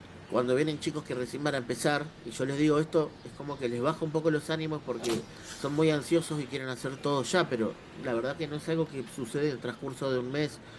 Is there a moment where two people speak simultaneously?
No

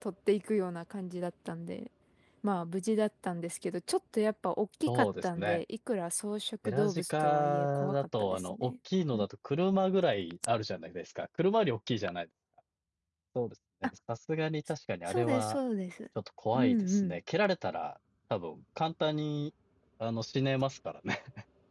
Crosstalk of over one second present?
Yes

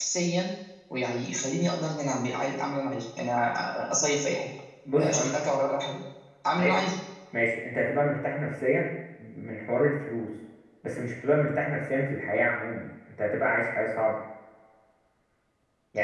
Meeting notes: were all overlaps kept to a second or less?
Yes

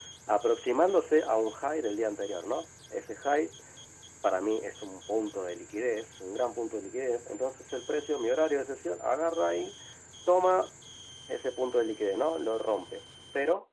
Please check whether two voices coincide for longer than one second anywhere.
No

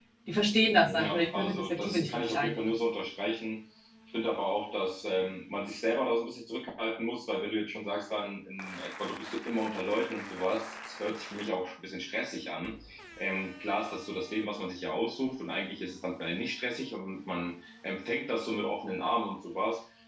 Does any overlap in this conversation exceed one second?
Yes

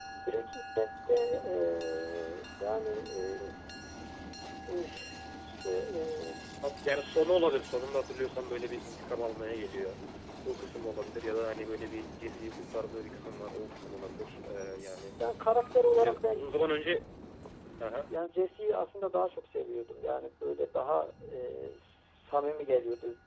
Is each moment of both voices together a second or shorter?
Yes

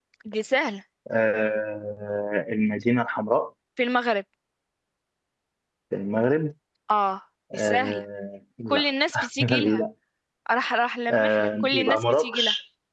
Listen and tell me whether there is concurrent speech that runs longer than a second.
Yes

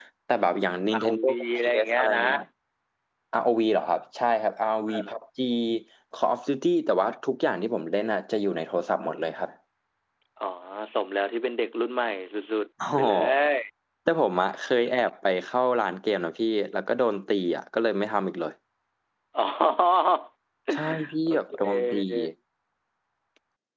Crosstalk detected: Yes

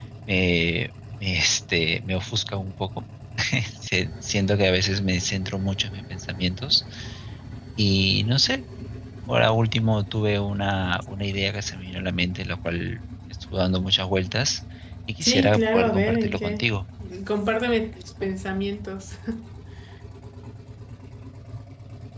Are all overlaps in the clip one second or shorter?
No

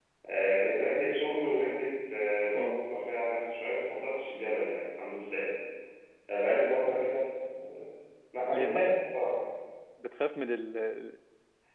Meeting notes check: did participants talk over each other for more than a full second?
No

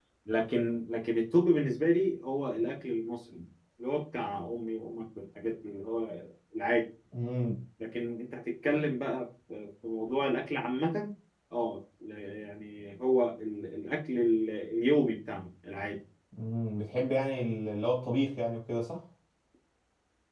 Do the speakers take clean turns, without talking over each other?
Yes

